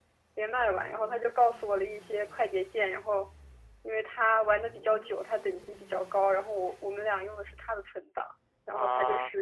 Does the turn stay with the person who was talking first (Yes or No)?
Yes